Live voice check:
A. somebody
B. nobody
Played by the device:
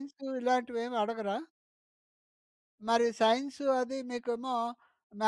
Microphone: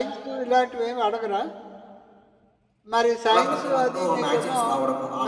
A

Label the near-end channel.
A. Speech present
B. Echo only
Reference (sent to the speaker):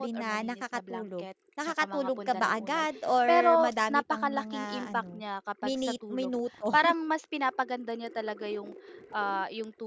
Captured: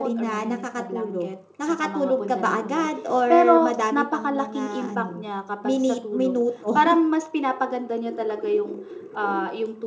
B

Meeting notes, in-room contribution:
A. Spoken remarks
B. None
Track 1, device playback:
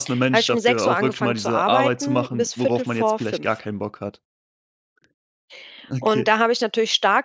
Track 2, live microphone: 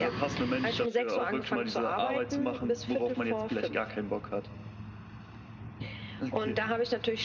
B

